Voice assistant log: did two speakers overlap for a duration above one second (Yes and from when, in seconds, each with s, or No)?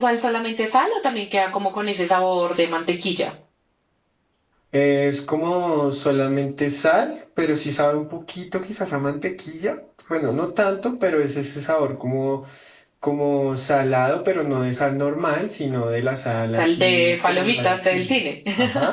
Yes, from 16.6 s